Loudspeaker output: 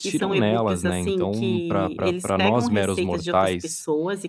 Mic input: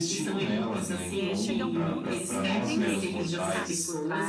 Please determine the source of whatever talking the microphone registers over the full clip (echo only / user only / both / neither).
both